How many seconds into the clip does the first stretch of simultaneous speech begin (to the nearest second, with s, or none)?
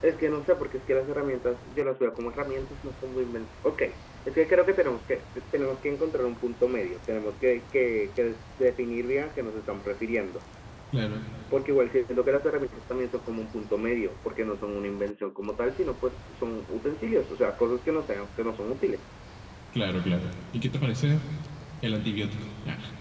none